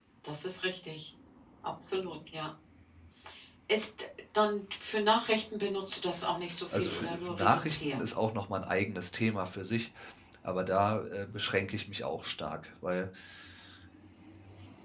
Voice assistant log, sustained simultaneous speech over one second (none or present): present